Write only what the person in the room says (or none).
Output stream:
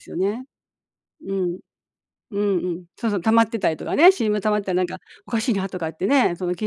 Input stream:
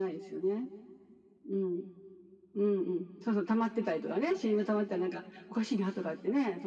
none